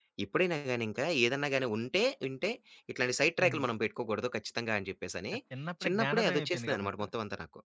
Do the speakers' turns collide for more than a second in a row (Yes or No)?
Yes